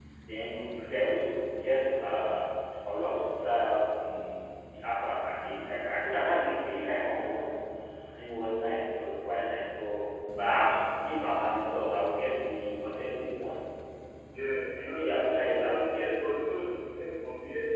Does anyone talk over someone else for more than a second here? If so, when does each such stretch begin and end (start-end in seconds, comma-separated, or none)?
14.8-16.7